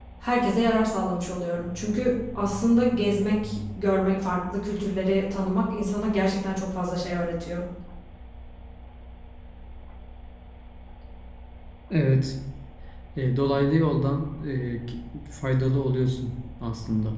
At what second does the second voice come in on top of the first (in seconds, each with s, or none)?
none